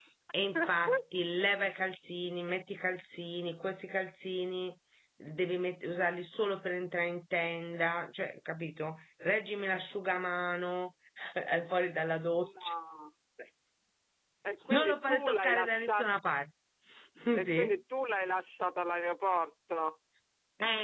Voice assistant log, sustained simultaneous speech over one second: present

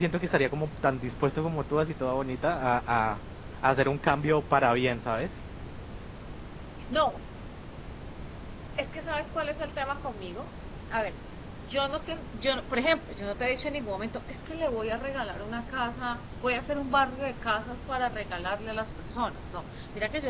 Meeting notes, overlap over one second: none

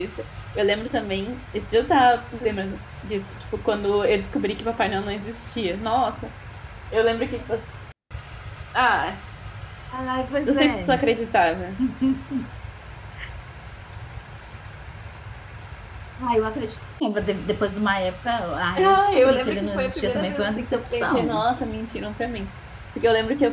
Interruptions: present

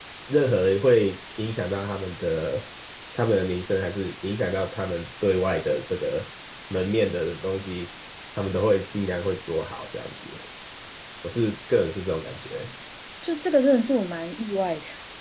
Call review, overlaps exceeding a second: none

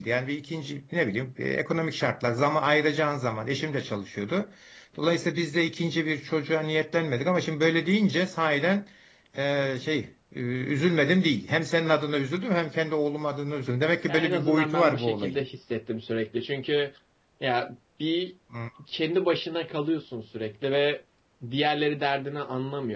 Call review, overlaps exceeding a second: present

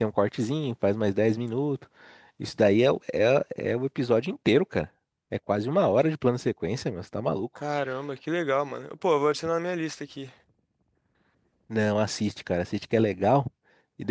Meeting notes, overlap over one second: none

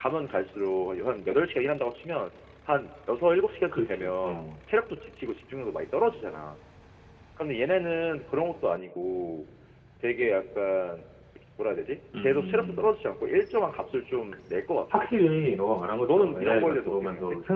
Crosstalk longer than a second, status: present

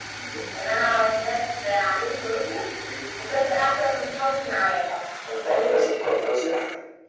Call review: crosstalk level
none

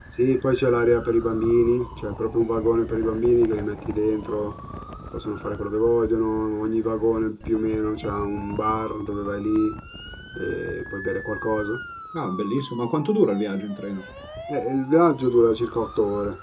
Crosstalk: none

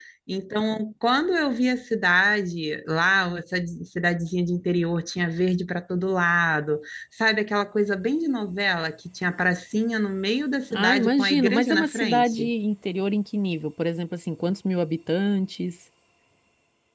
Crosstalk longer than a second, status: present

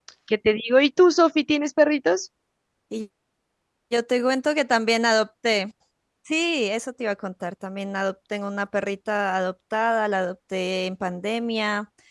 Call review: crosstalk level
none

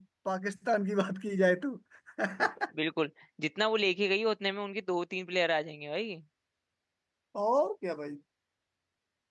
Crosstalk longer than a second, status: none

